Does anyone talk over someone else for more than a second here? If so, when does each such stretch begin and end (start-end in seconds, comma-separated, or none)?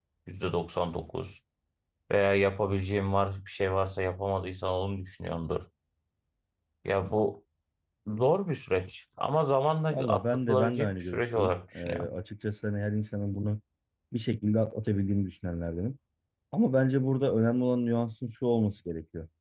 9.9-12.1